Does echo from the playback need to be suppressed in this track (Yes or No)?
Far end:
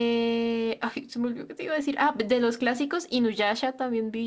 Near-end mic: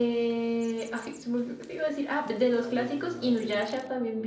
Yes